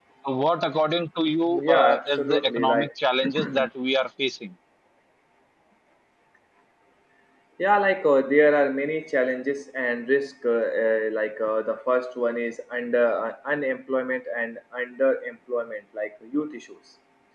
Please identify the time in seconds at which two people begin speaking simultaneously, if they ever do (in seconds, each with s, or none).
1.5 s